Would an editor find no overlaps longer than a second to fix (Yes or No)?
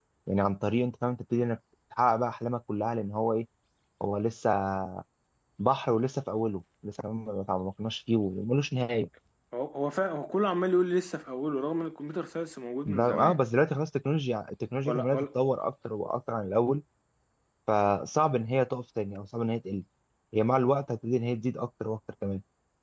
Yes